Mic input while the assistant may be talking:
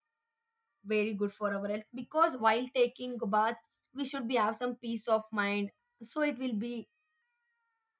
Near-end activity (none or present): present